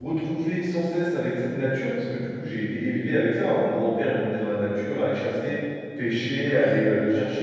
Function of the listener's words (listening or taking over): listening